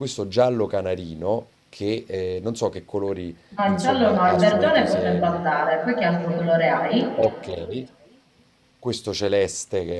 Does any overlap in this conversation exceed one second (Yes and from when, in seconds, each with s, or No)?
Yes, from 3.5 s